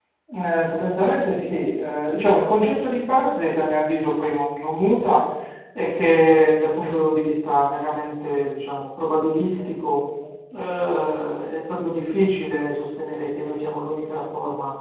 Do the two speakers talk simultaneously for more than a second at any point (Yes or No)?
No